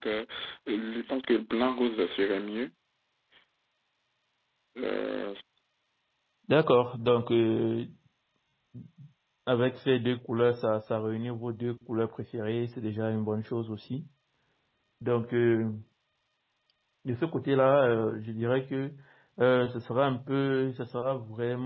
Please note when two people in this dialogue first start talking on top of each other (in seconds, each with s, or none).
none